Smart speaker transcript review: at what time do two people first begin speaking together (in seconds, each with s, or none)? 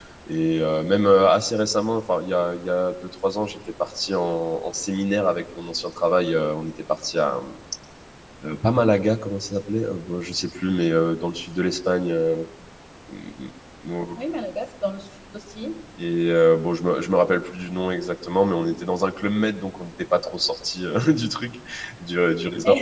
none